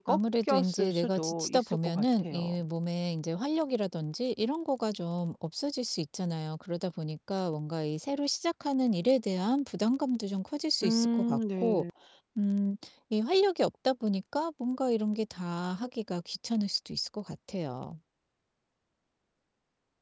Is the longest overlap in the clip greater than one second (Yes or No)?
Yes